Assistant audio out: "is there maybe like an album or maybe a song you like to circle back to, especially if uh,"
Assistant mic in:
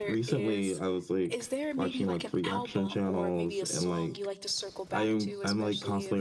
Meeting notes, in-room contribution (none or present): present